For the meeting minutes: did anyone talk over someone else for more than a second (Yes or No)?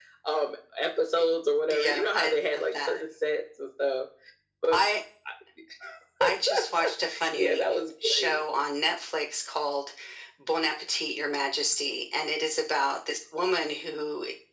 Yes